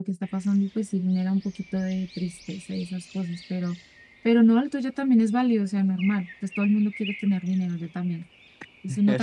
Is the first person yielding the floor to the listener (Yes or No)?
Yes